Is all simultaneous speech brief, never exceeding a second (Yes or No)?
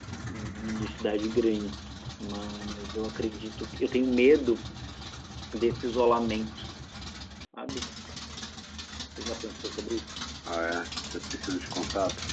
Yes